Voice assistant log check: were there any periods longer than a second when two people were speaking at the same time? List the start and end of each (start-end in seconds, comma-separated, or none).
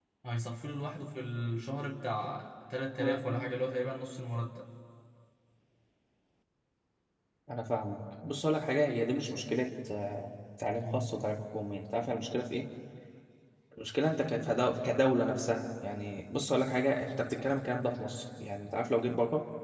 none